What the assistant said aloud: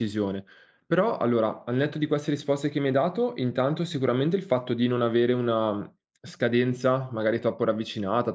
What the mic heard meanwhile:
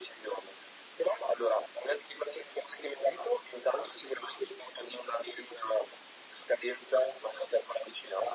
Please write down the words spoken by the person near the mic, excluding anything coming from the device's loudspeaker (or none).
none